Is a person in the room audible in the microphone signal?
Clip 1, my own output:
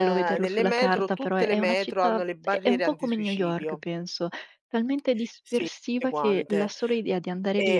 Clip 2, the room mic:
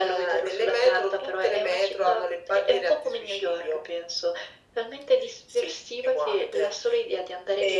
No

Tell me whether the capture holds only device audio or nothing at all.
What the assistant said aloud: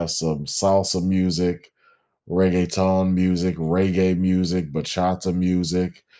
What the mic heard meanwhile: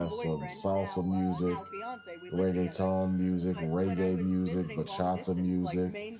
No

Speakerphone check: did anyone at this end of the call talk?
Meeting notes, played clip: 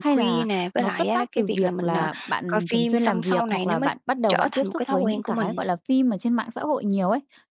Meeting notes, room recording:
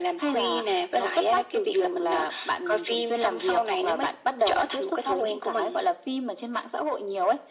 No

